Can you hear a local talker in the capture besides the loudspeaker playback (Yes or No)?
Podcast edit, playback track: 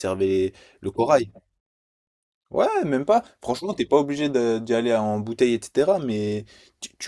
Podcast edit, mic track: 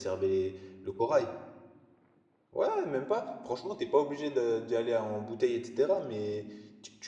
No